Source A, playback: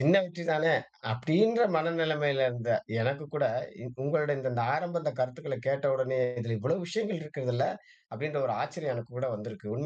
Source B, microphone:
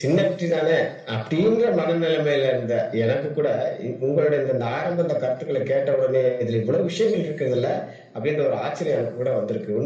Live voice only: none

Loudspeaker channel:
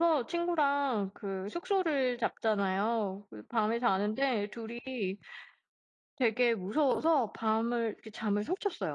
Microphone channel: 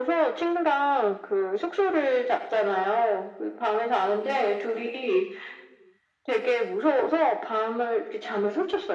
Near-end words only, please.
none

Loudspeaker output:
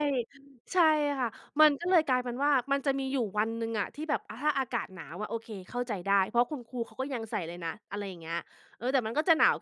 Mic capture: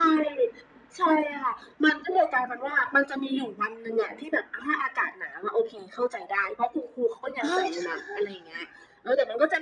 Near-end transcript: เออ ใช่

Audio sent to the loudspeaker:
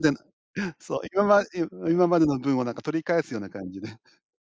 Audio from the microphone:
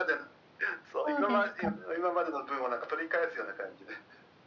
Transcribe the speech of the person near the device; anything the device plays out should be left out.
そうですか。

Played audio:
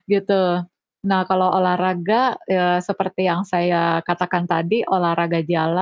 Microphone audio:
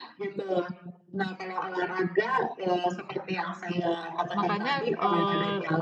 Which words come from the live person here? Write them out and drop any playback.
makanya, eee,

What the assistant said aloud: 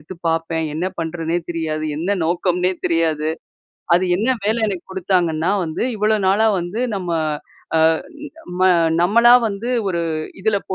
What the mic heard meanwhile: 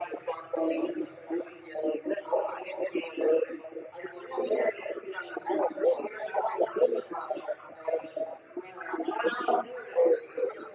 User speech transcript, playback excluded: none

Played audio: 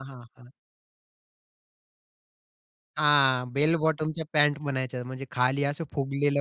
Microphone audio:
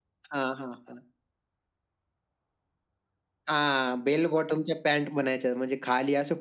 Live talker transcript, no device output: none

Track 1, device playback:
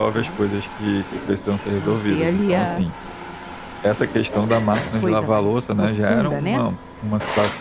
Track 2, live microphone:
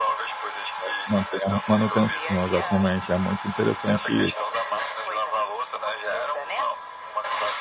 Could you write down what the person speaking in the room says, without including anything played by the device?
É. Manter a manutenção, exatamente, é muito interessante i

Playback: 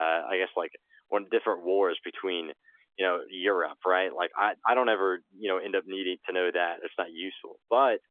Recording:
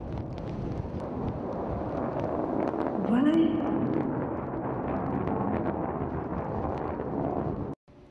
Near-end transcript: What?

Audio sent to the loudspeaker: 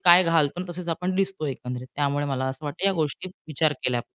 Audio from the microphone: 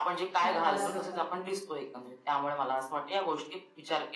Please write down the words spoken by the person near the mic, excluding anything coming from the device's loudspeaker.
घातला असतं तर.

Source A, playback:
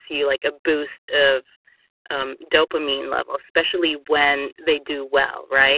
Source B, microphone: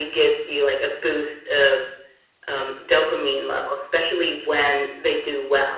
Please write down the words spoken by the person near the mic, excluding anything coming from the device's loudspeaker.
none

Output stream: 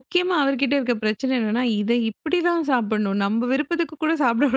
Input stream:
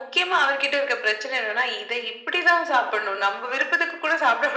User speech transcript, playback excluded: none

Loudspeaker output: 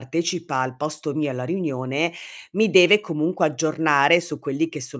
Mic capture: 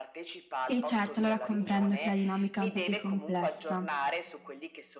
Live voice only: Sì, certo, allora, comprendo che la dinamica è un po' più complessa,

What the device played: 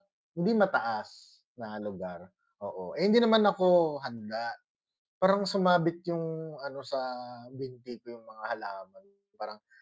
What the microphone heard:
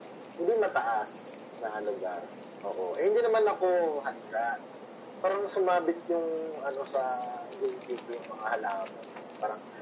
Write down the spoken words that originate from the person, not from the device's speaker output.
none

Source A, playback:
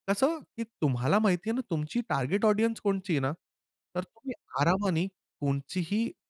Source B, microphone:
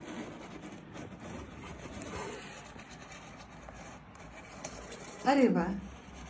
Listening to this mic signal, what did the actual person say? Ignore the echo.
अरे वाह!

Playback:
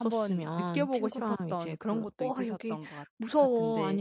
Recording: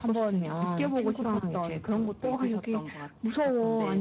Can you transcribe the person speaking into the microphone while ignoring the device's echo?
none

